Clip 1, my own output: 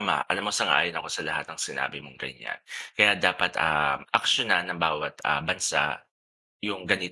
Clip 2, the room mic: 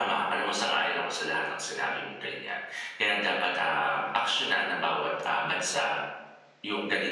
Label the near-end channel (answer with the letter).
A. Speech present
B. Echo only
B